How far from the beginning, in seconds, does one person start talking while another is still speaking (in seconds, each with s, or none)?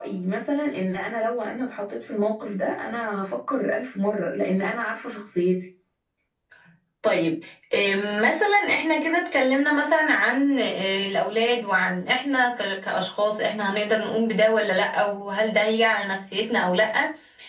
none